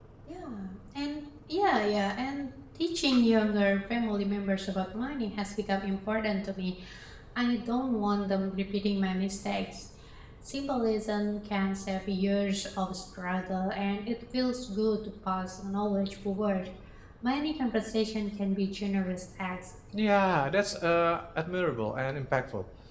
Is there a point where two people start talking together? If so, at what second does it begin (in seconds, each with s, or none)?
none